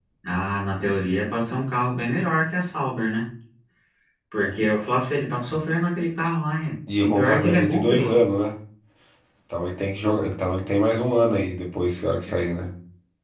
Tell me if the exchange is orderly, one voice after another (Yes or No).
No